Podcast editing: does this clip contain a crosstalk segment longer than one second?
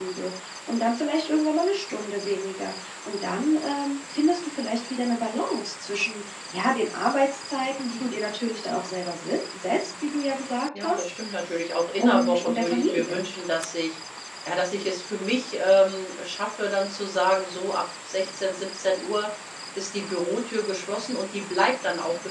Yes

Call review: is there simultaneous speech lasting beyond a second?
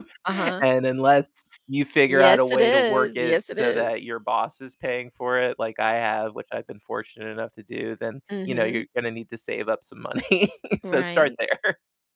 Yes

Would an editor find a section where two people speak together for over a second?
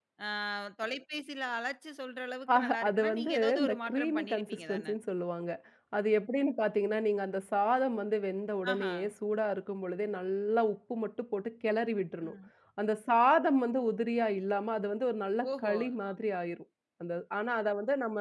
Yes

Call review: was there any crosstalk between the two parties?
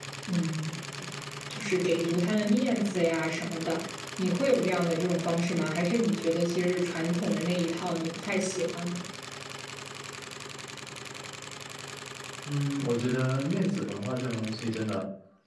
No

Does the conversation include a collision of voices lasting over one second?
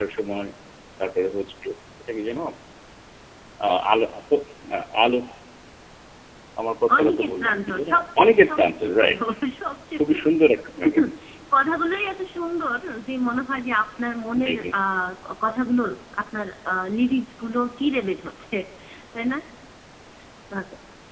Yes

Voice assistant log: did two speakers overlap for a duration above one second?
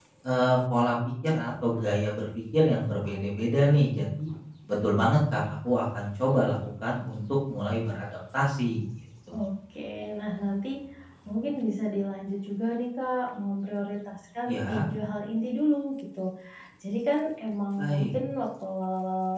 No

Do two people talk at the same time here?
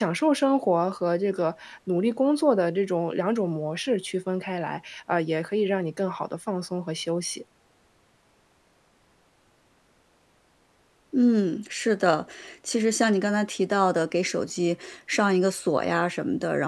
No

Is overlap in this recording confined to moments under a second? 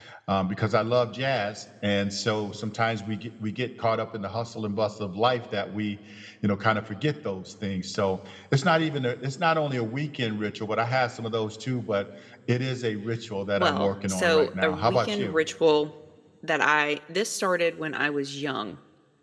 No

